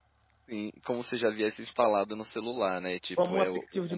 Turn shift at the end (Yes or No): Yes